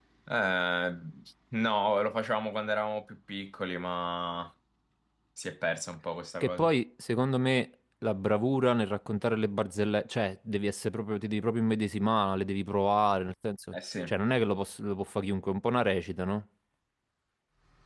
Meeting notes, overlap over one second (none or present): none